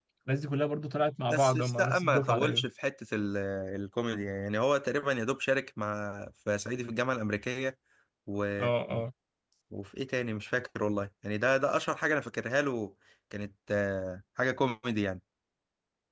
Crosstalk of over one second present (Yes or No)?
Yes